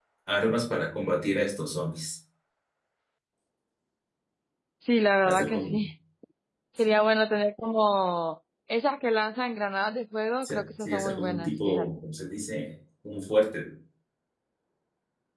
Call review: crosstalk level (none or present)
present